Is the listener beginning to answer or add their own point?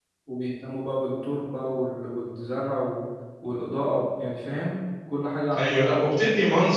Yes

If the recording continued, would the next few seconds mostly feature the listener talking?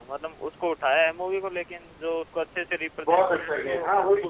Yes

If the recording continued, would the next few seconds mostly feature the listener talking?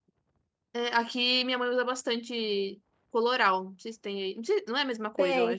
Yes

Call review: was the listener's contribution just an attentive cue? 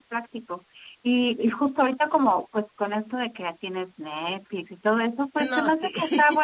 Yes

